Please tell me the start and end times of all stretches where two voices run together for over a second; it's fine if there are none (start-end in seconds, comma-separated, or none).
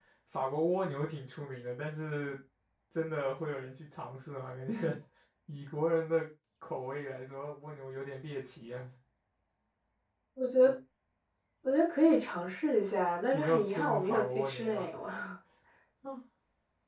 13.3-14.9